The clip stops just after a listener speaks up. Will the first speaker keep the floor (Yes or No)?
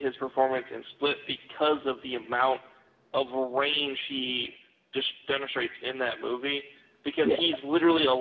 Yes